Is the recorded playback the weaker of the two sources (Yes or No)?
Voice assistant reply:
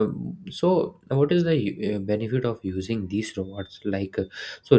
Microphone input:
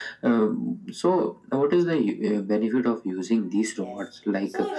No